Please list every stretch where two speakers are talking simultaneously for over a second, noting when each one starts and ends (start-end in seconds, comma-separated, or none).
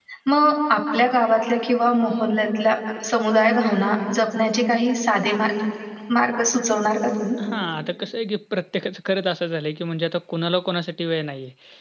none